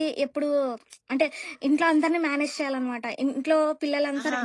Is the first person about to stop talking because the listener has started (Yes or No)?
No